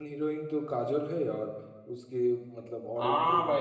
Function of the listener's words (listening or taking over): taking over